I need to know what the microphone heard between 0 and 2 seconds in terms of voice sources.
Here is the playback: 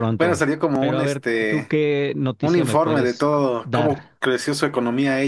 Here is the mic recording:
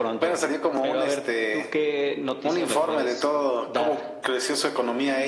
echo only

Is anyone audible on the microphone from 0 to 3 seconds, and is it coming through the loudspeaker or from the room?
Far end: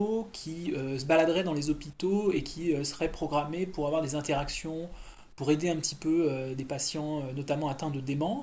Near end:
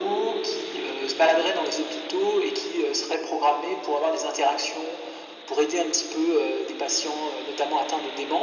echo only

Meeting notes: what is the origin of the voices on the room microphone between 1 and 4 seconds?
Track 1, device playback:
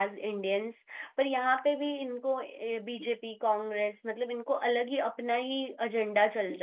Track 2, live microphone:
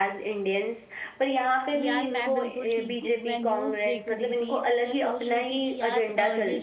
both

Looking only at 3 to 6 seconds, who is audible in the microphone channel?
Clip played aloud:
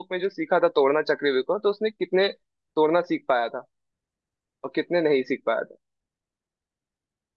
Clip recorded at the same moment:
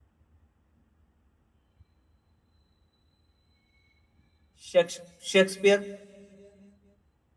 user only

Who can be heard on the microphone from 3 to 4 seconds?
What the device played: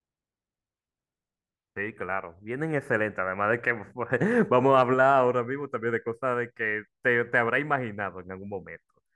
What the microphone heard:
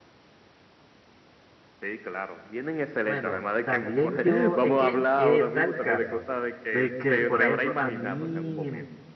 both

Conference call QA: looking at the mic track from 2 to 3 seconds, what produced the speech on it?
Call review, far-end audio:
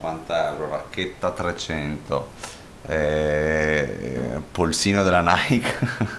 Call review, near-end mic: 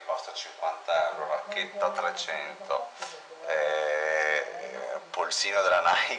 both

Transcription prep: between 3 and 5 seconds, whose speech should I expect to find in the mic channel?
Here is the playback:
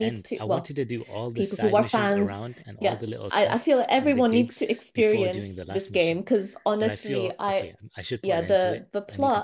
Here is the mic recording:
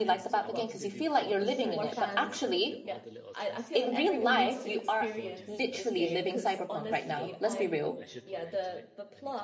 both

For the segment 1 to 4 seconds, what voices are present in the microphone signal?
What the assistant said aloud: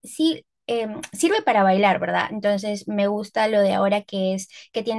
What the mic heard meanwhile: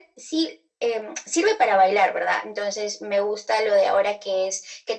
echo only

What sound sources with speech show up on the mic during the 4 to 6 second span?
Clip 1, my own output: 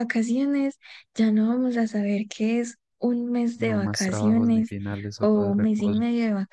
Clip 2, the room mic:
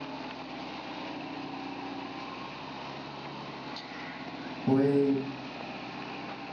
user only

